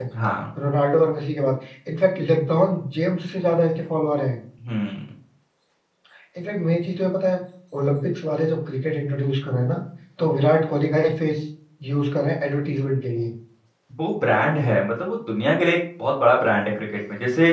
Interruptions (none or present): none